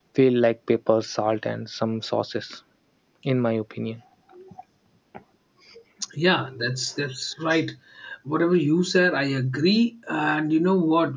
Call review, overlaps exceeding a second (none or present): none